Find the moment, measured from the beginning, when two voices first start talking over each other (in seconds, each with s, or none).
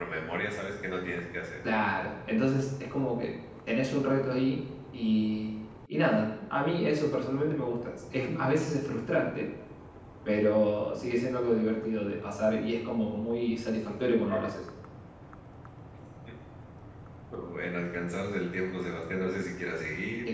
none